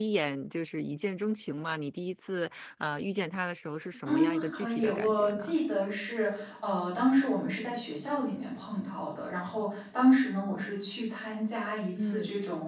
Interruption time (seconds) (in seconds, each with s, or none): 4.0 s